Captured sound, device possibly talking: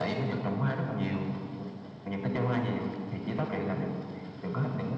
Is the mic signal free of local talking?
Yes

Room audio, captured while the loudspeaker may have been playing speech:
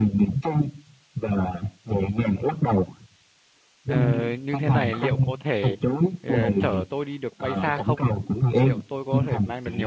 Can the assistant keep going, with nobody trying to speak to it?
No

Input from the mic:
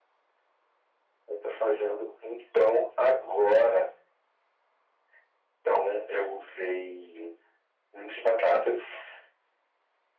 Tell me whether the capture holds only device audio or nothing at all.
Yes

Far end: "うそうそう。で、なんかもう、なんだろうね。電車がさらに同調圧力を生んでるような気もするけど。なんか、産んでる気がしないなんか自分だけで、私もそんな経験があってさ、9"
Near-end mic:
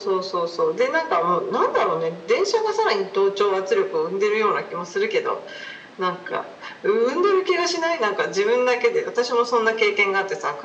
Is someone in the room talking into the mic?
No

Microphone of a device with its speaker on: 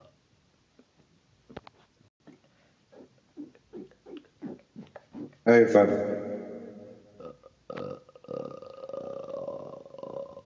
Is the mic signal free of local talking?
No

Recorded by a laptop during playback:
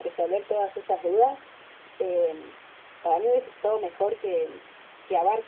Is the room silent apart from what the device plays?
Yes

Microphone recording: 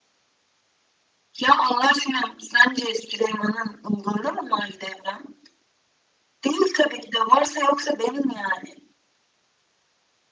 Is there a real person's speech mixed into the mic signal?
No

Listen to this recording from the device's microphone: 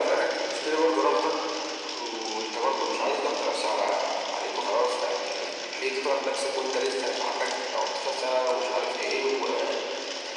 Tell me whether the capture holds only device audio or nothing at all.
Yes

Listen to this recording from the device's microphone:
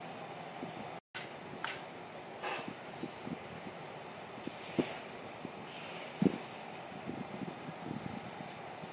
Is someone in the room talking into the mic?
No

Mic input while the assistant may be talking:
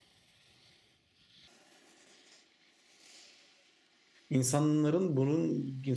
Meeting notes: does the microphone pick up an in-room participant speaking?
Yes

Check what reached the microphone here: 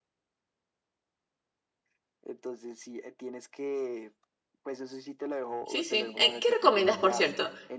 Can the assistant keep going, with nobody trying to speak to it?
No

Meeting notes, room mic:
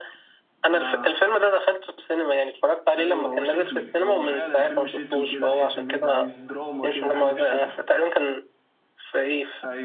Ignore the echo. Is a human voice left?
Yes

